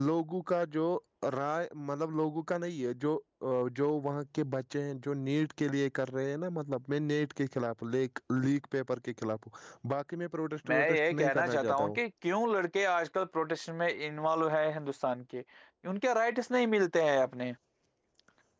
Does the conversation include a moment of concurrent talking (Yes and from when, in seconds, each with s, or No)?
Yes, from 10.6 s